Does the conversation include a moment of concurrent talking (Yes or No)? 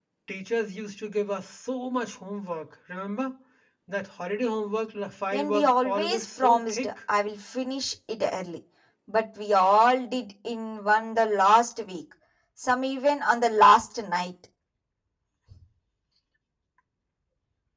Yes